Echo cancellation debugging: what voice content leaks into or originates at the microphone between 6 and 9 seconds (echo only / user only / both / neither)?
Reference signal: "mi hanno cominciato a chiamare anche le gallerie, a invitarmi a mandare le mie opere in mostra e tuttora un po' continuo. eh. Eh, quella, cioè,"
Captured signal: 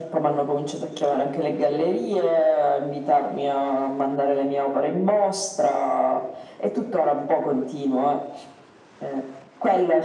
echo only